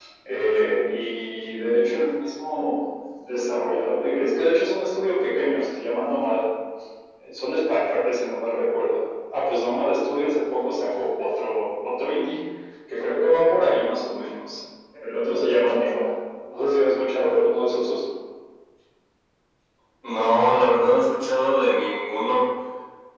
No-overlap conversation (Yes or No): Yes